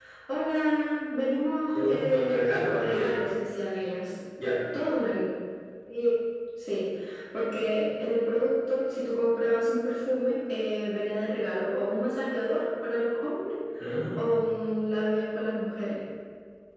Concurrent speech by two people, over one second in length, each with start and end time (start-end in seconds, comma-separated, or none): 1.7-3.1